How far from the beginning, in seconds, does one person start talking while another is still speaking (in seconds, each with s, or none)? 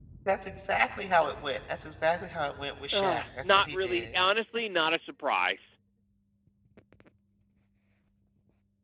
2.9 s